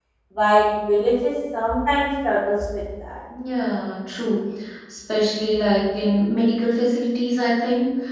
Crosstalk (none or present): none